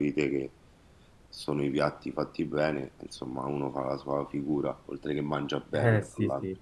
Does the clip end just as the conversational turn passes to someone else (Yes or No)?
Yes